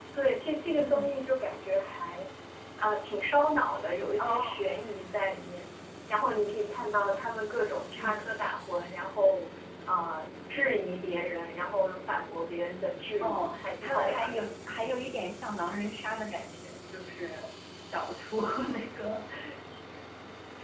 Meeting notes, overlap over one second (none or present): present